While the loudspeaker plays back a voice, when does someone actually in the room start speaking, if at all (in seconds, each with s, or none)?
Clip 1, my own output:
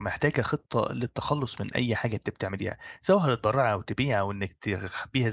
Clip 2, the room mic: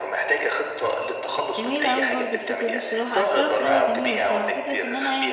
1.6 s